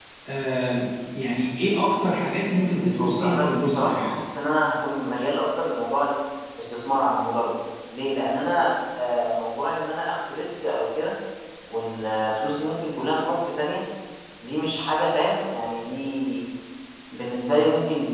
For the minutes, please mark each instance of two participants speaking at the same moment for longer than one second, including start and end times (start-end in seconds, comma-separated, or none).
2.8-4.1